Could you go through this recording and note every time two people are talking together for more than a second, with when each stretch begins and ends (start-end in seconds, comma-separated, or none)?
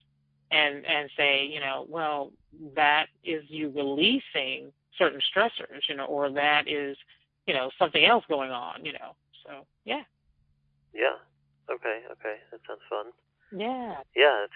none